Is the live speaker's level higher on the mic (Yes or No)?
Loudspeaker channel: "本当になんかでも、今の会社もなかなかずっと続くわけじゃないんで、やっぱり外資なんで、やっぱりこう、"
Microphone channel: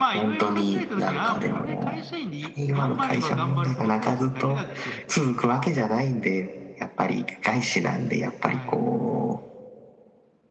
No